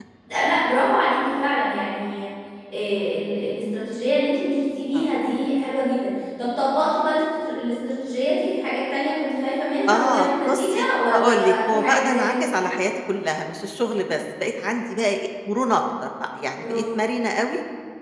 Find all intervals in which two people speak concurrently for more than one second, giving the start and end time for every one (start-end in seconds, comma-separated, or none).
9.9-12.3